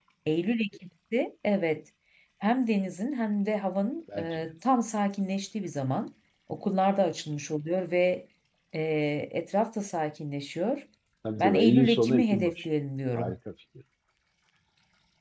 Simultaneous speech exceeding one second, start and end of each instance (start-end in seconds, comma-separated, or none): 11.4-12.7